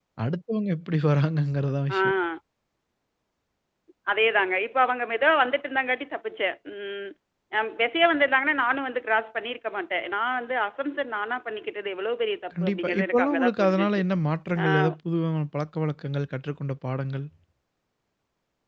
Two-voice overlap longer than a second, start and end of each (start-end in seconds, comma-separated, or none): 12.6-14.0